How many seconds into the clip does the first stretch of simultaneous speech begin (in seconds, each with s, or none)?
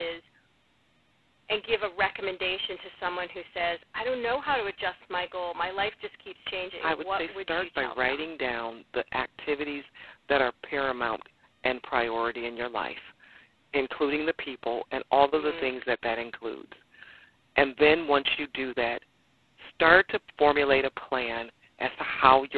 6.8 s